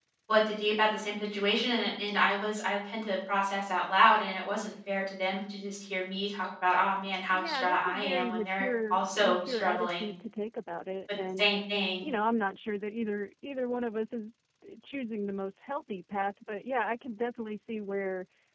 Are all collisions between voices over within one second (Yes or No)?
No